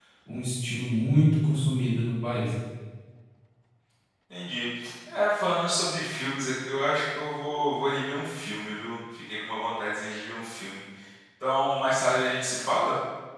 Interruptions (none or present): none